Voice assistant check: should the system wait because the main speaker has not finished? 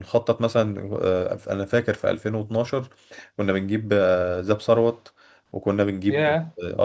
Yes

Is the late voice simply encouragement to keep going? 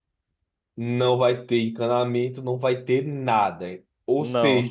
Yes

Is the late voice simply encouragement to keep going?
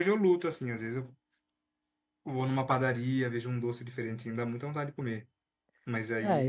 No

